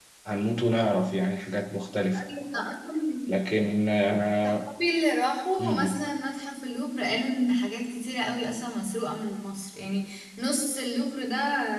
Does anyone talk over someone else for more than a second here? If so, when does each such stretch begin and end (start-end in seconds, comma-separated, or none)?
none